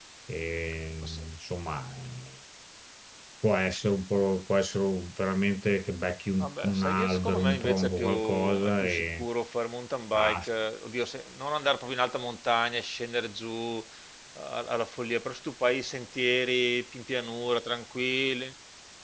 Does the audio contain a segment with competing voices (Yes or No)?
Yes